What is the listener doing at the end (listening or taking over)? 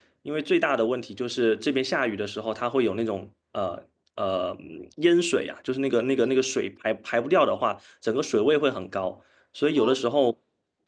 listening